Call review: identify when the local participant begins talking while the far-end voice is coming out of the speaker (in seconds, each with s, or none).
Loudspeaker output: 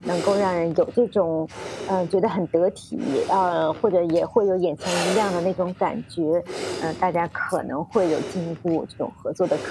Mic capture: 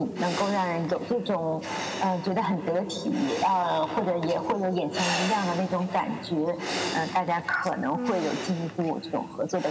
7.9 s